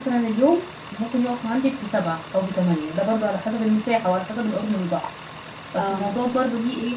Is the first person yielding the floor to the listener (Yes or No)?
No